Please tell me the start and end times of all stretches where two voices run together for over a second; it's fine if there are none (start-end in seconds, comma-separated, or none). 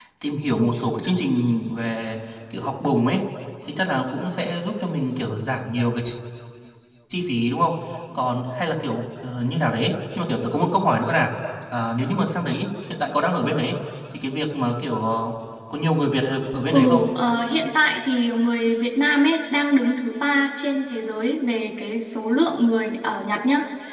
none